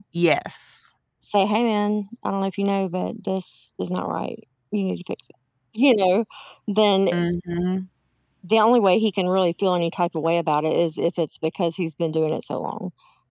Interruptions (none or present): none